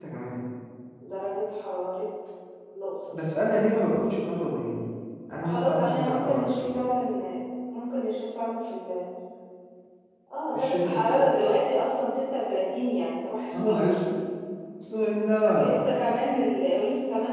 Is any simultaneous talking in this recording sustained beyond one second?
Yes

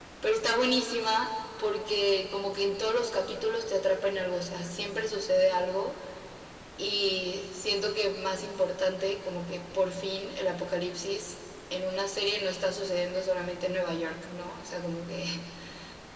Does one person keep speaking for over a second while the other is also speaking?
No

